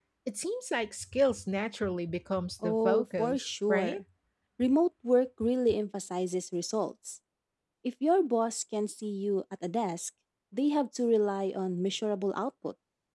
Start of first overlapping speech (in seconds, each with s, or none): 2.6 s